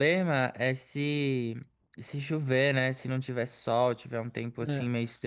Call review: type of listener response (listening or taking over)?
listening